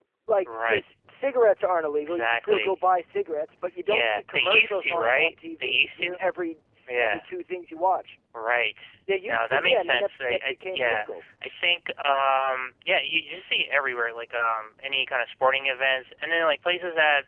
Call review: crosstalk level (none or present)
present